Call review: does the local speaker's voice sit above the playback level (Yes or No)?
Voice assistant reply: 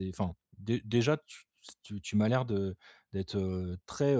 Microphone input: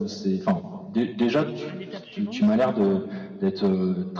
No